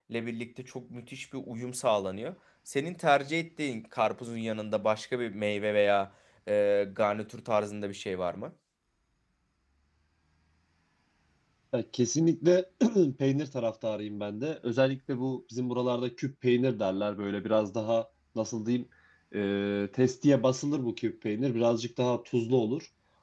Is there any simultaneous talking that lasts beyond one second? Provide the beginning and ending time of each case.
none

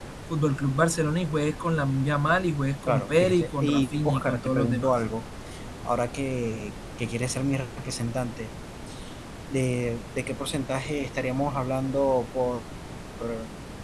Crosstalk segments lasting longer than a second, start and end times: 2.9-4.9

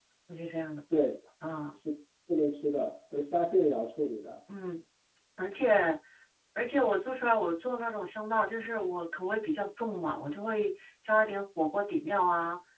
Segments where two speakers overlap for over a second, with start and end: none

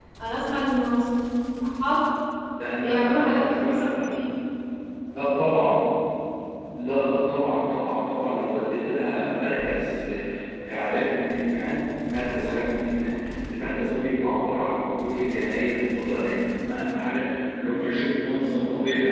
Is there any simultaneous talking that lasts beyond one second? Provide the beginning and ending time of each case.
2.7-4.0

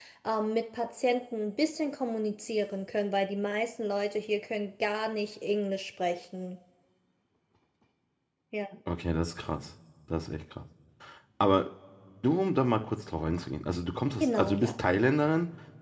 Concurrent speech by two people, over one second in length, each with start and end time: none

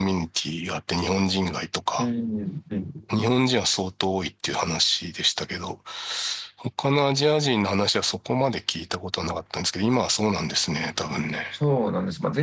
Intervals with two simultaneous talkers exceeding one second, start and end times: none

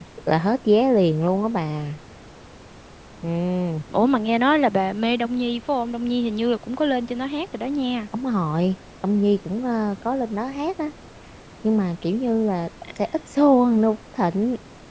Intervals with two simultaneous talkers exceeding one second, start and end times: none

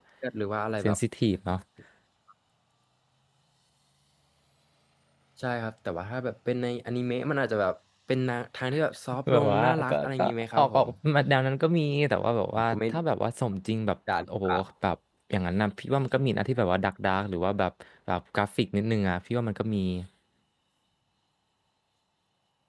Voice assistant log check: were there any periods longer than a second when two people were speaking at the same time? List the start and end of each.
9.3-10.9

